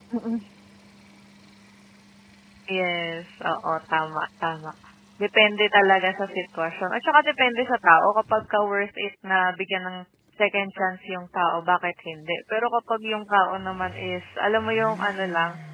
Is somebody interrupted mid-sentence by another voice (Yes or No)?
No